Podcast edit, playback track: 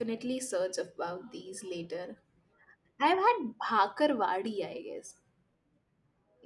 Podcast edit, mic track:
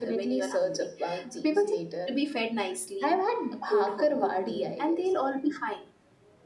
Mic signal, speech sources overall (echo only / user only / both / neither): both